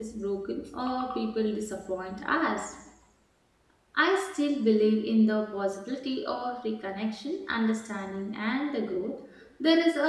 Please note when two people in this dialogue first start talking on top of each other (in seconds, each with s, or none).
none